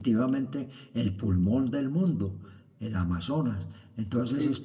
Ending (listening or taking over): listening